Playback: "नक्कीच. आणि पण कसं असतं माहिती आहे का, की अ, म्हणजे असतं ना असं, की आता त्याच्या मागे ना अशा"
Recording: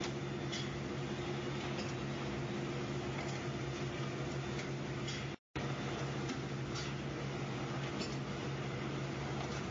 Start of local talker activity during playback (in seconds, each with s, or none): none